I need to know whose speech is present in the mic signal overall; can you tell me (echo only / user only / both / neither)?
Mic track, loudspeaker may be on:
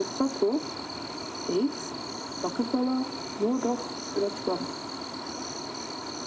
echo only